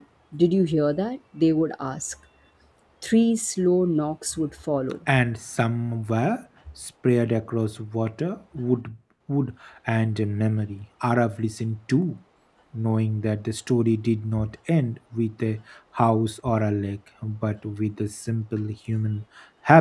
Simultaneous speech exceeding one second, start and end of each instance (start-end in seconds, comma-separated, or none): none